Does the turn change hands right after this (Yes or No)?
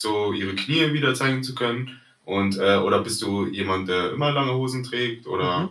Yes